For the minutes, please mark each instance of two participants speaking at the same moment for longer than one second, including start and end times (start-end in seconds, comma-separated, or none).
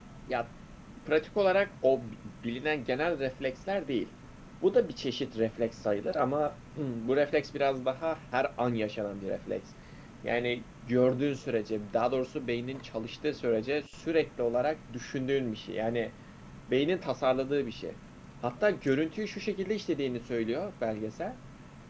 none